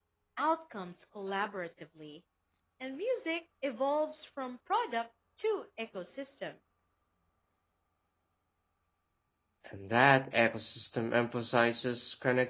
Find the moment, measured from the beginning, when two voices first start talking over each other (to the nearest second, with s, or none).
none